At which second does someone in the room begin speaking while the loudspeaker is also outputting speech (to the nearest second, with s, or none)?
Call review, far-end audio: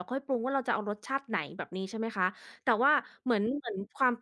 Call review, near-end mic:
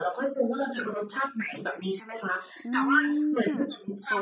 3 s